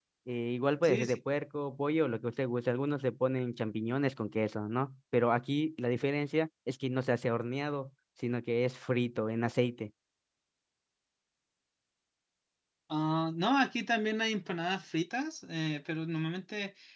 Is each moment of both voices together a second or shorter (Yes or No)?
Yes